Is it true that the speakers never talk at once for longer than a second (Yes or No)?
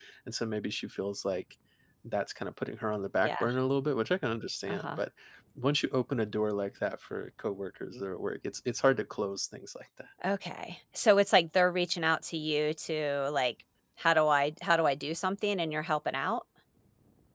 Yes